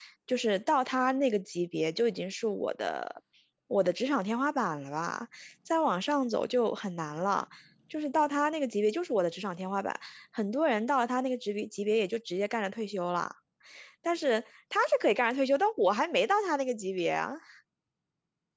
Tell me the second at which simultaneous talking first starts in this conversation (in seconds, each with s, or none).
none